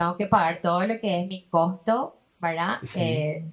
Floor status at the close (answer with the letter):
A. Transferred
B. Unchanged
B